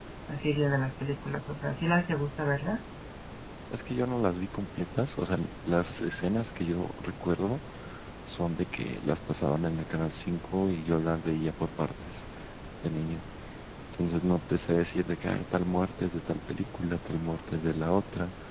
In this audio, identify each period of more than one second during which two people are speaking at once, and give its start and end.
none

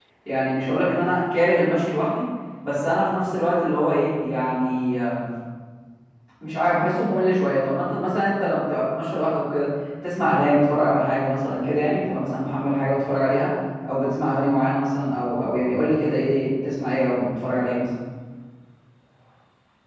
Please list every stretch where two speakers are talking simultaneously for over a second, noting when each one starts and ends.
none

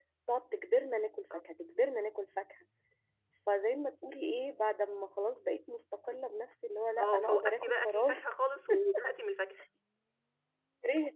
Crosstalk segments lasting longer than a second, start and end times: 7.0-8.2

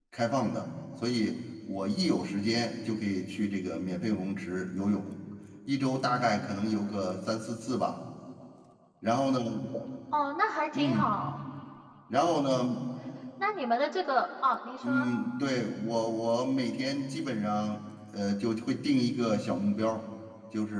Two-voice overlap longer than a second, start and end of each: none

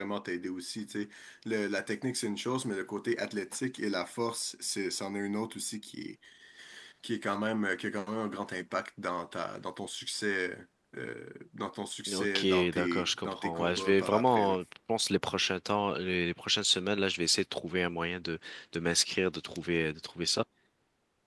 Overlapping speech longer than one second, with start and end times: 12.1-14.6

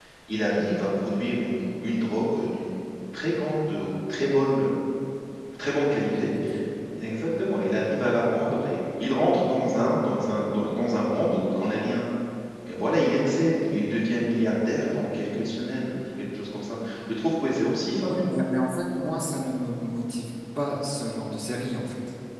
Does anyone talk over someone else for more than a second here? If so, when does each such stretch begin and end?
none

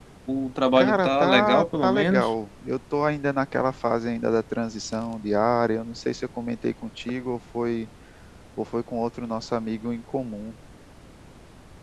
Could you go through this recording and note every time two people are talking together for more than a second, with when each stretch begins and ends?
0.8-2.3

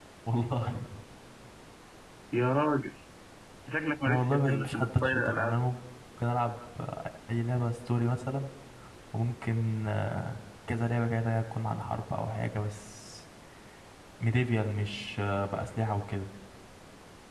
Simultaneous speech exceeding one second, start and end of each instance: 4.1-5.5

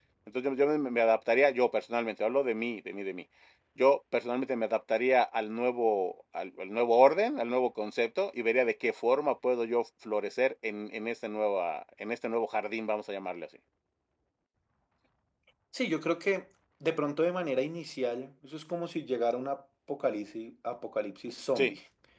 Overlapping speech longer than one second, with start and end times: none

